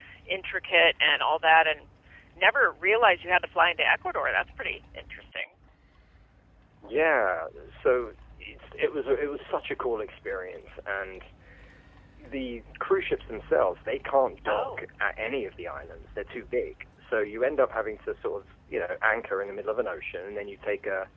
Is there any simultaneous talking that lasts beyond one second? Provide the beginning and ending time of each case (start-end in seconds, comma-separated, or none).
none